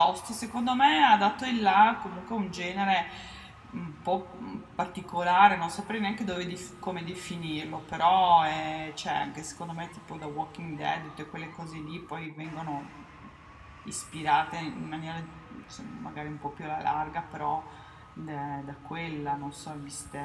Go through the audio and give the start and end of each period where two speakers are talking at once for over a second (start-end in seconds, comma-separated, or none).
none